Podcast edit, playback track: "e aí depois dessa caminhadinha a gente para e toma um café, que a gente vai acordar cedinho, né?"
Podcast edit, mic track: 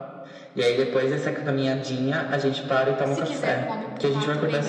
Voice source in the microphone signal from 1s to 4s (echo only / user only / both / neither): both